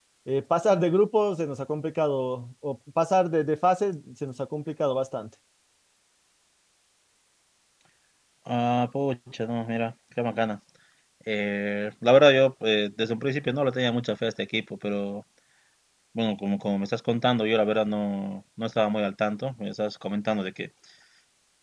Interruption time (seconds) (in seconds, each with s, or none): none